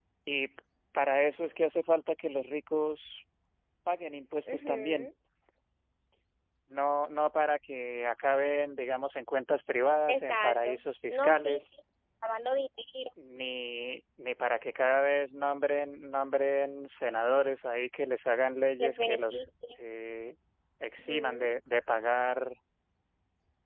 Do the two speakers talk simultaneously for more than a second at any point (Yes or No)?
Yes